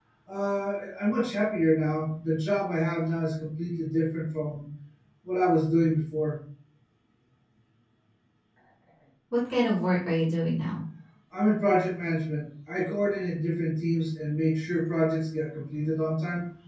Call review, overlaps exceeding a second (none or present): none